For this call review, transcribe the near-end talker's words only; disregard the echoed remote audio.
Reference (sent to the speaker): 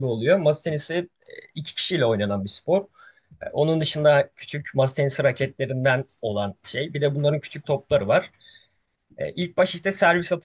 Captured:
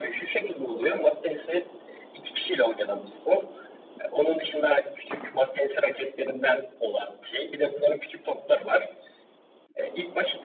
none

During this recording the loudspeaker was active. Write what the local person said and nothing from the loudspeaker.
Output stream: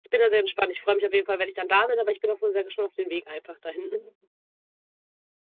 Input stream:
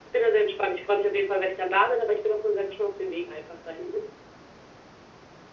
none

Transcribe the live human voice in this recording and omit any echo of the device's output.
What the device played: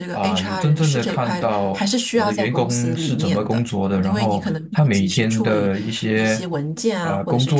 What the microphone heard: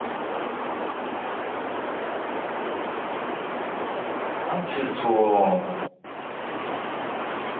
啊、就是做

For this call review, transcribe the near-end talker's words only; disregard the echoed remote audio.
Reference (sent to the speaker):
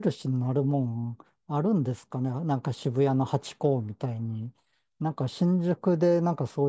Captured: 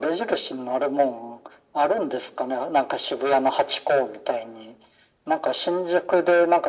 none

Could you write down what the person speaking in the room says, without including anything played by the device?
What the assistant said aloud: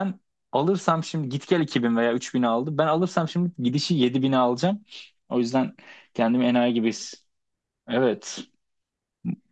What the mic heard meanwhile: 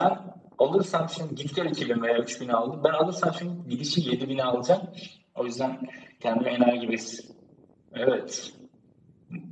none

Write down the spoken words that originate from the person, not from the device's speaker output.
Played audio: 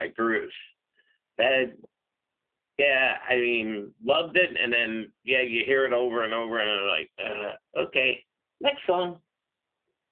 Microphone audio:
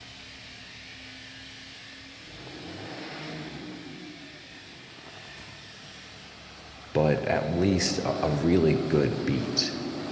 but at least a, a really good beat.

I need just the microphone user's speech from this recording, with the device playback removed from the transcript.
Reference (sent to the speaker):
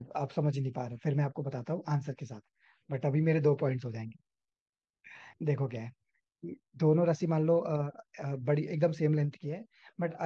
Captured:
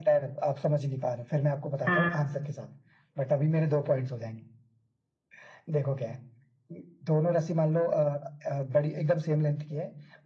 हाँ

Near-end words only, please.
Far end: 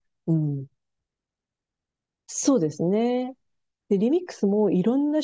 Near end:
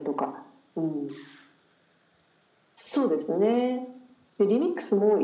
none

